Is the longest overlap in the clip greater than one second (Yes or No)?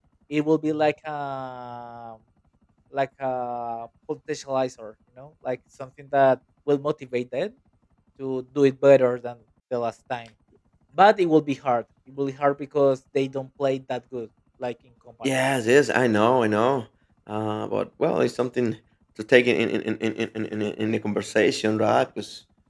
No